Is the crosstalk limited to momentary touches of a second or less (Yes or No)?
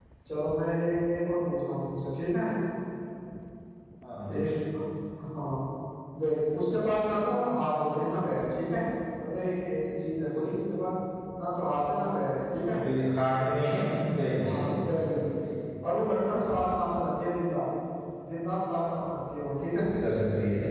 Yes